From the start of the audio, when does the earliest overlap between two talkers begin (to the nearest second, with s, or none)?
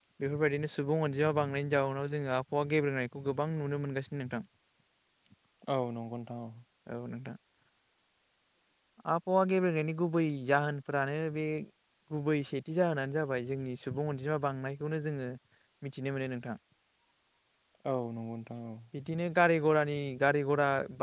none